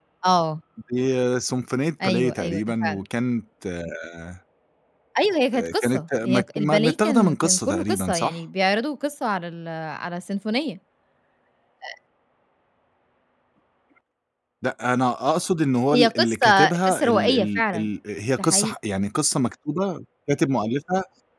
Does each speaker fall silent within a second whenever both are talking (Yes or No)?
No